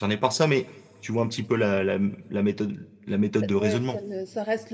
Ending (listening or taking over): taking over